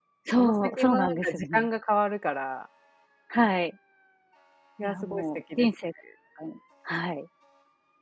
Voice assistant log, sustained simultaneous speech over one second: present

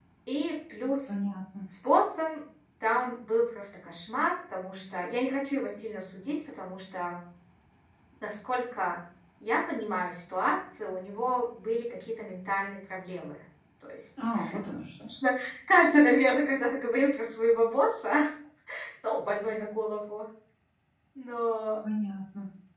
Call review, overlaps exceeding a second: none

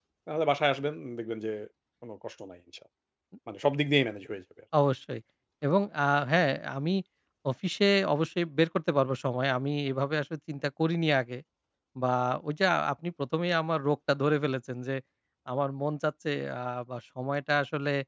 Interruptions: none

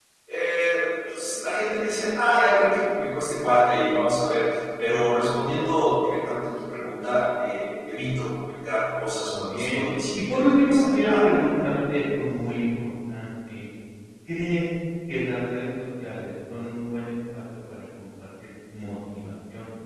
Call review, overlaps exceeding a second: present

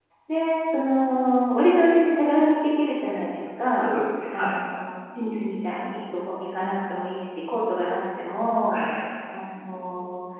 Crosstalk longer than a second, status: none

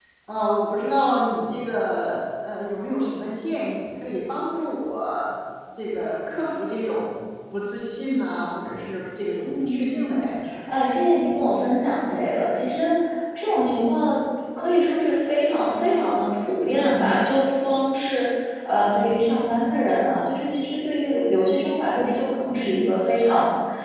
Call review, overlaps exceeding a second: none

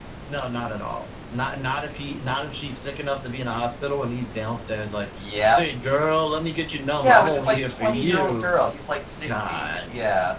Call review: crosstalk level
present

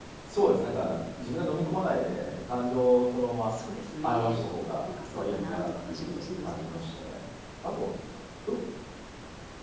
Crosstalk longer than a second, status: present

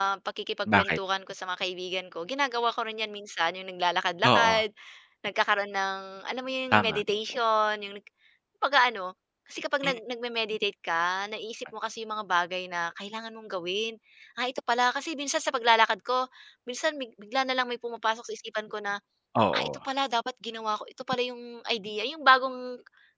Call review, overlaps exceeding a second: none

